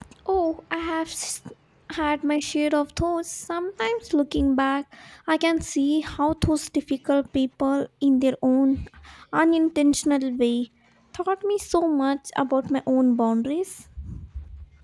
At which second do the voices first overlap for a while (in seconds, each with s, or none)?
none